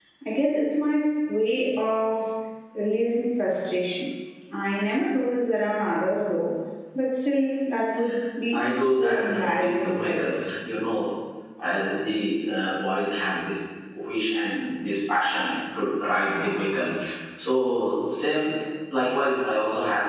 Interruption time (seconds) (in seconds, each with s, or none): 8.5 s